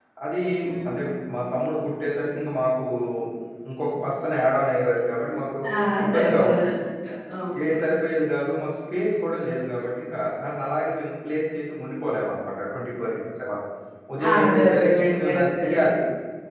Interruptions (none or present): present